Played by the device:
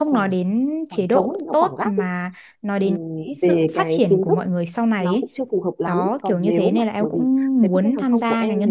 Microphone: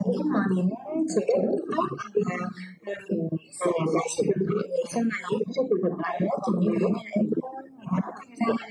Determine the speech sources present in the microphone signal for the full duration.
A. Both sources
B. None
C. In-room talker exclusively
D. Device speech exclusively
D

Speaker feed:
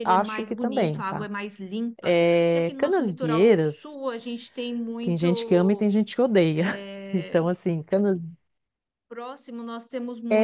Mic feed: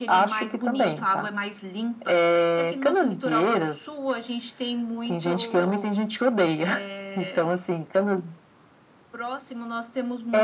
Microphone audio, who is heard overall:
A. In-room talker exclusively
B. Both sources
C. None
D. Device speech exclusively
D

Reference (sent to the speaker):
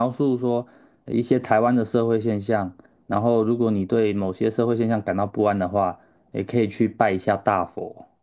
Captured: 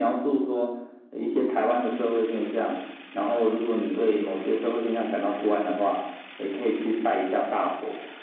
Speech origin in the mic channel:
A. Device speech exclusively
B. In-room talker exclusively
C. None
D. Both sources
A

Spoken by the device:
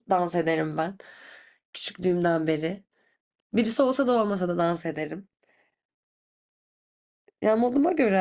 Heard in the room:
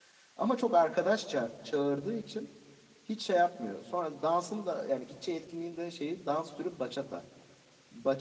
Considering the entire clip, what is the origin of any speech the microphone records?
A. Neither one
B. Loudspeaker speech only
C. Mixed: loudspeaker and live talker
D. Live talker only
D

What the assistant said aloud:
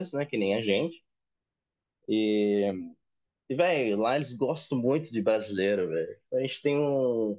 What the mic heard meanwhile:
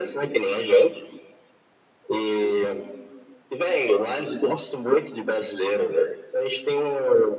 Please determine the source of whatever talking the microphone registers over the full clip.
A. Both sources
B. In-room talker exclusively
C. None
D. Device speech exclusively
D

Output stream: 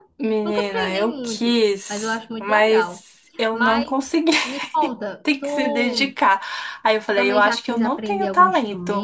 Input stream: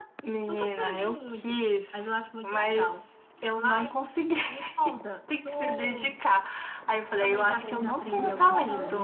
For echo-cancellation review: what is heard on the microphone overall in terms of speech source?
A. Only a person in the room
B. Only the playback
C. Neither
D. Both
D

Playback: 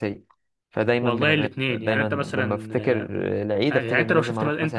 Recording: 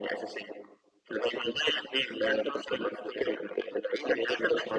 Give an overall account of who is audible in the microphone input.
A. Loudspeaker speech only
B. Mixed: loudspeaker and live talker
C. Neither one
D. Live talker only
A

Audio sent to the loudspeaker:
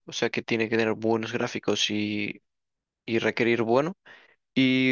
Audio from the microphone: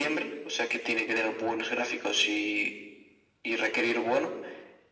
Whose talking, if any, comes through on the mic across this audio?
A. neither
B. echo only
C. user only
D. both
B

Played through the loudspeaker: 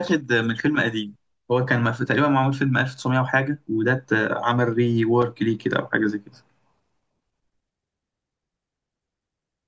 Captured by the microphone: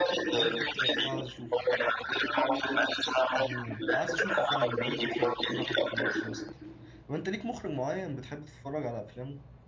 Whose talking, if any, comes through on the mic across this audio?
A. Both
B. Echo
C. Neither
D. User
A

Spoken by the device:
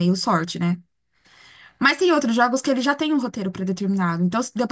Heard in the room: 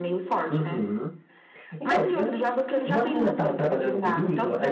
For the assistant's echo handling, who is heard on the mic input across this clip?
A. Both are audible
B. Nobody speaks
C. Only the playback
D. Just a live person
A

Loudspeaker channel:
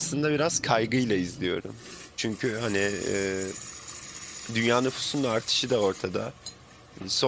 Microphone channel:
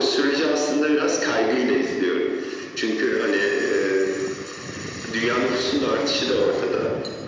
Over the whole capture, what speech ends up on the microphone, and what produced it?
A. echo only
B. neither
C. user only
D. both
A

